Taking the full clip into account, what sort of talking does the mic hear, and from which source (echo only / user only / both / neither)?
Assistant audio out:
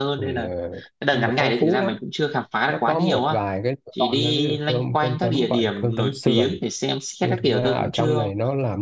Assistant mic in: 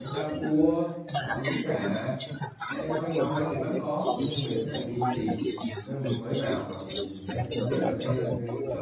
both